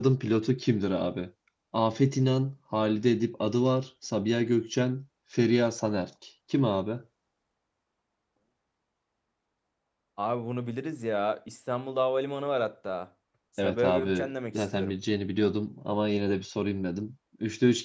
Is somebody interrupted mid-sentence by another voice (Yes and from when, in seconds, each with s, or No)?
Yes, from 13.6 s